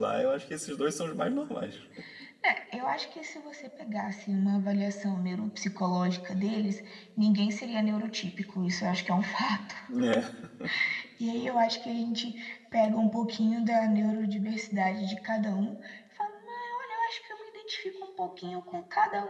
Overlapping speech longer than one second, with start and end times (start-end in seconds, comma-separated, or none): none